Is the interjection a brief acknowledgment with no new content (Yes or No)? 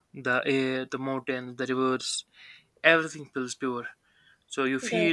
Yes